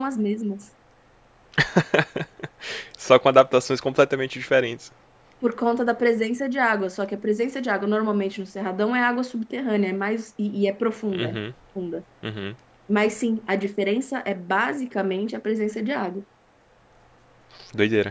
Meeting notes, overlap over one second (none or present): none